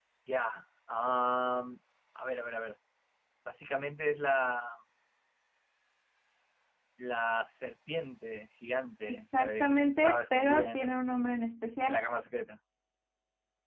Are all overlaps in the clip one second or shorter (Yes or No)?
No